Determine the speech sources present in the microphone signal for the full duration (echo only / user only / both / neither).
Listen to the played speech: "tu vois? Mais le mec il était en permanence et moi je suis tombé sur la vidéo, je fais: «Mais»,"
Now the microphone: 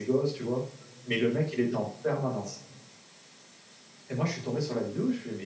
echo only